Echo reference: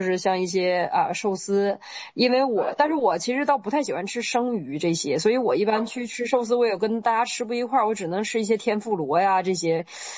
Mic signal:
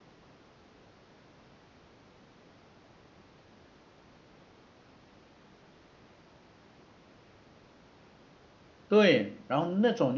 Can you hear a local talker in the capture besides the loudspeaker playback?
Yes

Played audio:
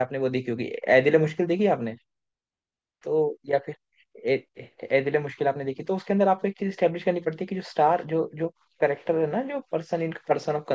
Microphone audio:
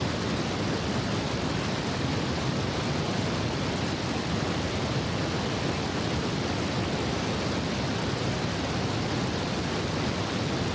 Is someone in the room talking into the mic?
No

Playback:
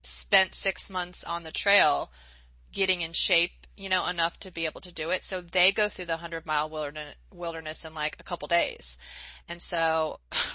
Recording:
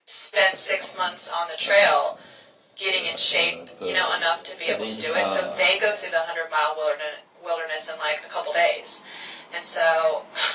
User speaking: Yes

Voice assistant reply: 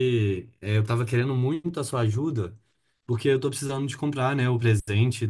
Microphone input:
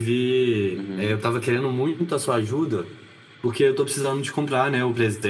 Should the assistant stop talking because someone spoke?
Yes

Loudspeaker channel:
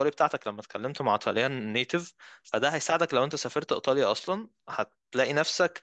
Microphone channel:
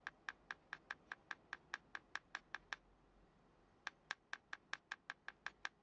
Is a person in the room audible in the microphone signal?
No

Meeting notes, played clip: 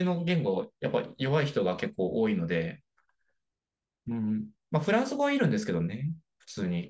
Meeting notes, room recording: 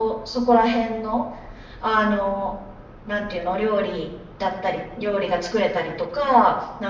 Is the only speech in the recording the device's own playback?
No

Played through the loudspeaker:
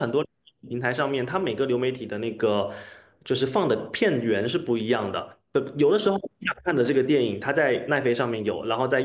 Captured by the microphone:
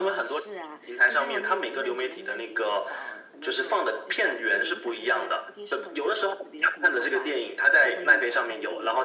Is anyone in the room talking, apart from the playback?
Yes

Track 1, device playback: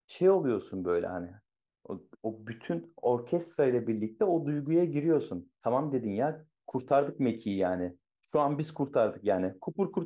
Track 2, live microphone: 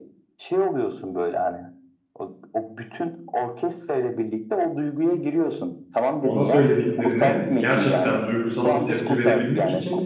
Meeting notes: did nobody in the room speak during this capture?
No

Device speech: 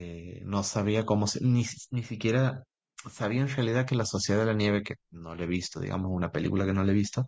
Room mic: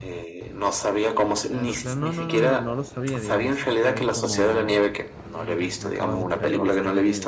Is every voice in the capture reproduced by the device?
No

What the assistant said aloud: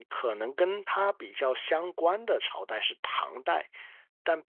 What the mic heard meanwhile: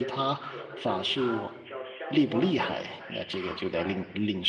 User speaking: Yes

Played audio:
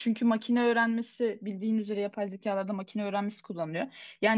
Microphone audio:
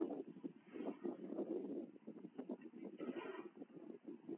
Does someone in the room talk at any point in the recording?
No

